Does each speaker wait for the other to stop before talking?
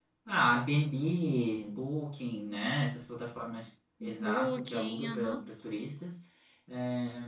No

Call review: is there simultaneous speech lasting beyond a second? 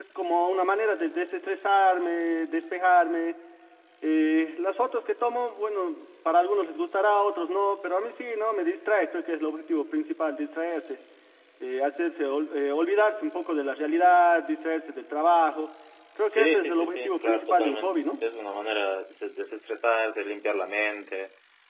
Yes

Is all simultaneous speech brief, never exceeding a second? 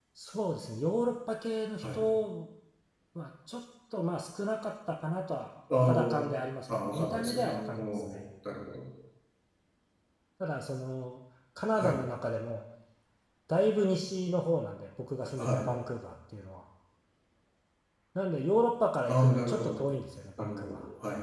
No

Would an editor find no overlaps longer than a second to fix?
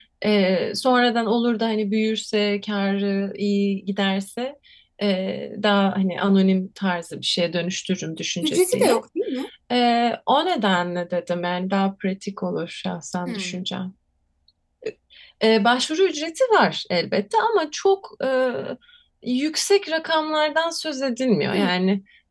Yes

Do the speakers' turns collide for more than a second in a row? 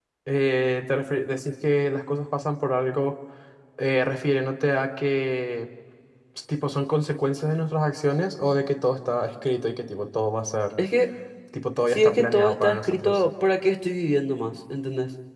Yes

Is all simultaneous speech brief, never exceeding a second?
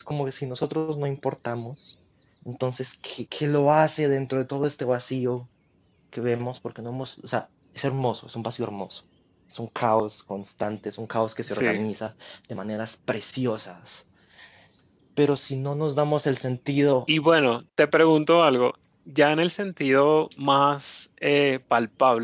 Yes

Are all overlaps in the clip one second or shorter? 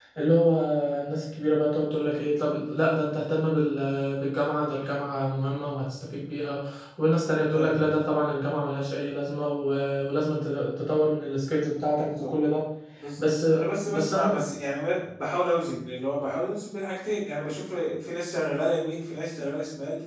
Yes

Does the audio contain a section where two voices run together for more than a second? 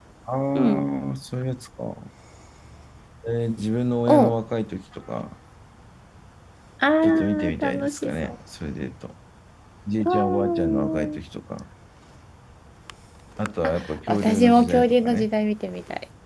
Yes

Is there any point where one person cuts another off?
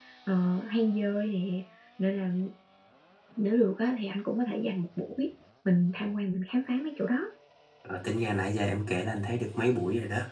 No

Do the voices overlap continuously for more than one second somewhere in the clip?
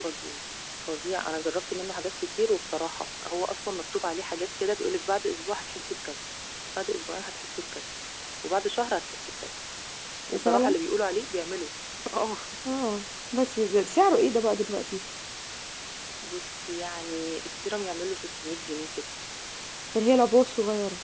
No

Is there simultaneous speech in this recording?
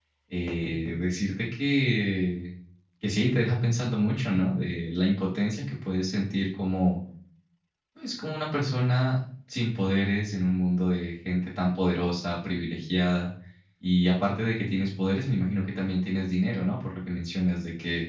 No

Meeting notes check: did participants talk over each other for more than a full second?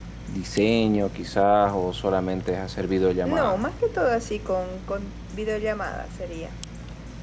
No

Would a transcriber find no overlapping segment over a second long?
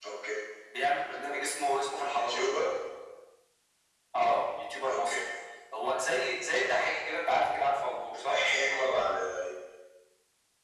Yes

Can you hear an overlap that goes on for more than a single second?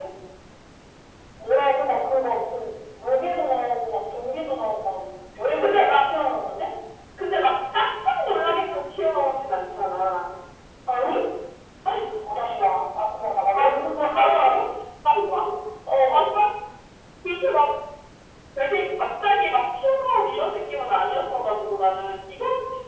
No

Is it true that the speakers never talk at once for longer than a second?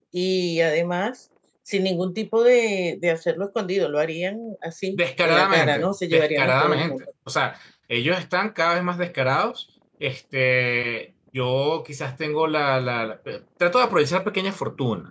No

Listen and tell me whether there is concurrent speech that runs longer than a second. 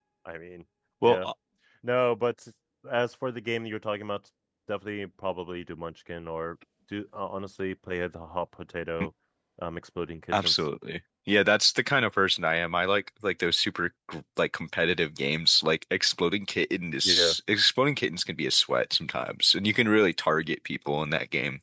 No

